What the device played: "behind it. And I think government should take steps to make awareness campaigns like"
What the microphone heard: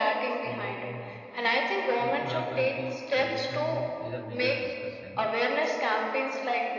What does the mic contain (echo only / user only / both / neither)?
both